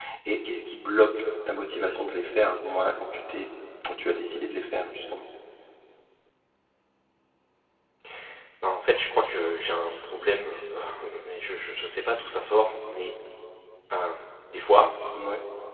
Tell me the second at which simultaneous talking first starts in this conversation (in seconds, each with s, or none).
none